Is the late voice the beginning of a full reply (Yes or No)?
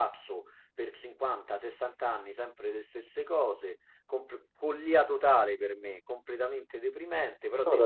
No